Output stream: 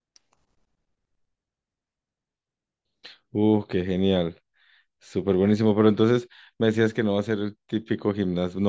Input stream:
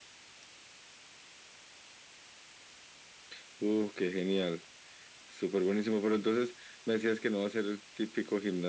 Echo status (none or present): present